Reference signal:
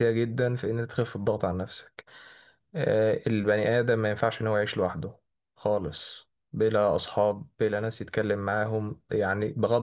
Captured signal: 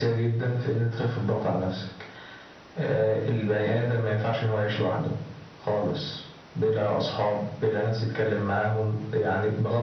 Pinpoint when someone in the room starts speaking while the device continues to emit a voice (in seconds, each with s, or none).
none